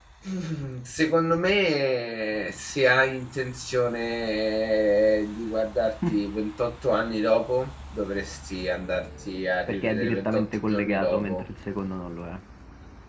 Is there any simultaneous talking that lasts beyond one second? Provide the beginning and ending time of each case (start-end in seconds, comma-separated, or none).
9.7-11.5